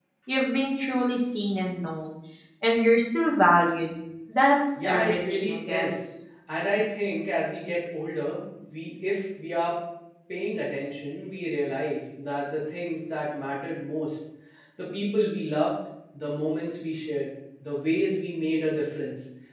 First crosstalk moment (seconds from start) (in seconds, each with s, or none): 4.8 s